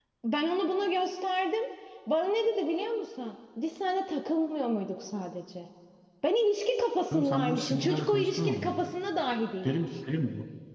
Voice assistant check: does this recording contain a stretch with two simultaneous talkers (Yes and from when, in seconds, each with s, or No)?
Yes, from 7.1 s